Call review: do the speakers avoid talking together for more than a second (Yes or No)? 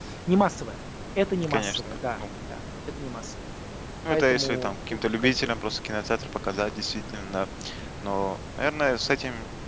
No